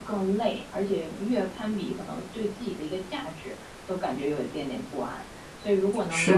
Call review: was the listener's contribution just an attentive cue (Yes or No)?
Yes